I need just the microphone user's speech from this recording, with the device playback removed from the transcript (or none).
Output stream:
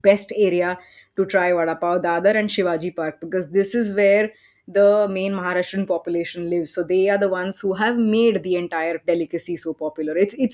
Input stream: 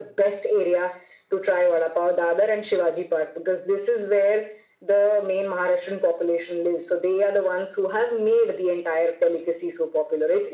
none